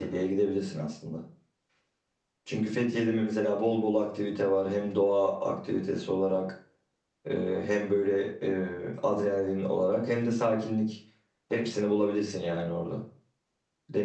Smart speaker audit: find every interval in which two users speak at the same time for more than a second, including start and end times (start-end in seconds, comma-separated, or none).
none